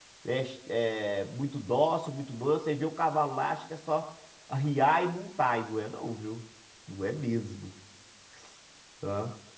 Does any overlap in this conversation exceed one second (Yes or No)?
No